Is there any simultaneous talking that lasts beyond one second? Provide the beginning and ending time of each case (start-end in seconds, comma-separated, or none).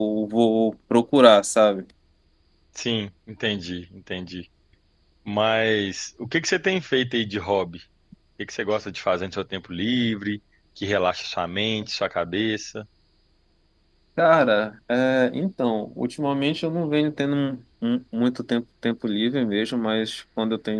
none